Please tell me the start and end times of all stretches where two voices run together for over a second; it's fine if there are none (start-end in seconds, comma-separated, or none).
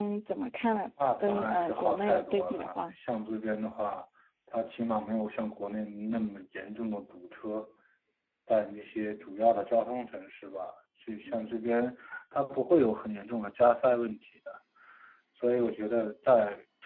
1.2-2.7